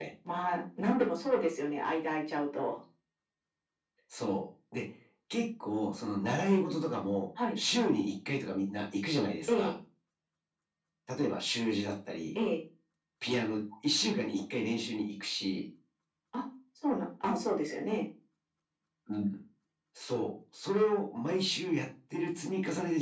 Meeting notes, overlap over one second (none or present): none